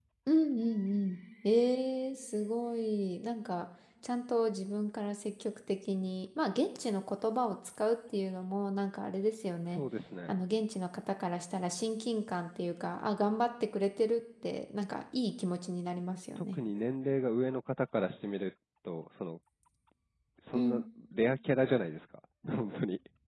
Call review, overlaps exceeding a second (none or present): none